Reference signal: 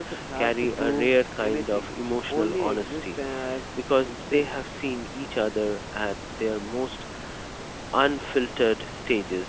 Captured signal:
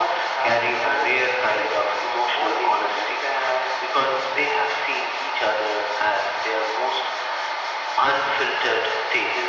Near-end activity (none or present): none